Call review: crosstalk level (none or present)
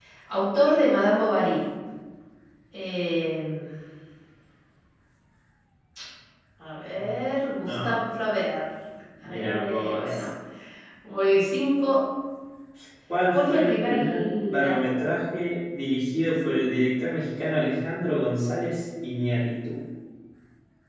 present